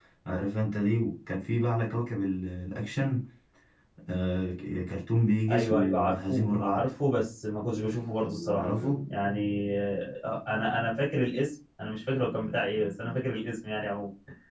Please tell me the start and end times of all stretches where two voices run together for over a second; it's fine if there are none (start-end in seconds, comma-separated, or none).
5.5-6.9